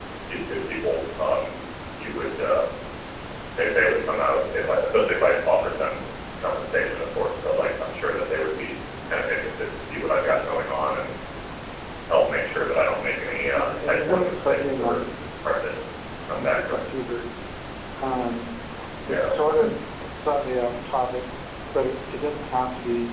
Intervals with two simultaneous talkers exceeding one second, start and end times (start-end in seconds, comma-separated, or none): 13.5-15.0